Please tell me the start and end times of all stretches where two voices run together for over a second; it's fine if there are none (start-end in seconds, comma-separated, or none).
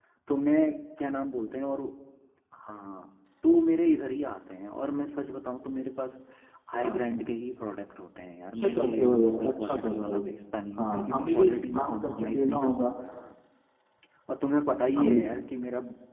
8.6-10.2, 10.8-12.9